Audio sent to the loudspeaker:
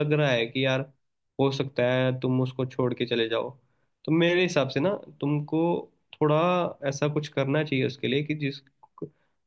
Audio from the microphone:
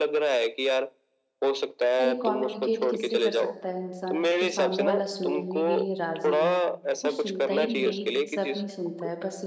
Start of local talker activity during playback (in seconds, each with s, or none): 2.0 s